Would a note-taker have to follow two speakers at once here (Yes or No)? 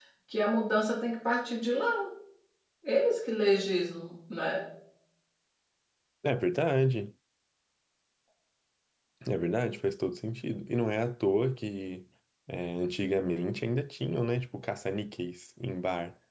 No